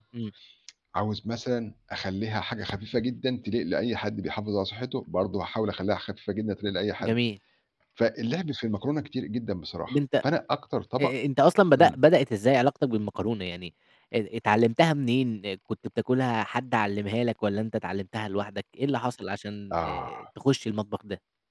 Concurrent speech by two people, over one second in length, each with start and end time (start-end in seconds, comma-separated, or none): none